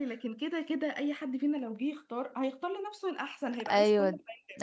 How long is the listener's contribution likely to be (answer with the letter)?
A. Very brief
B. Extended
B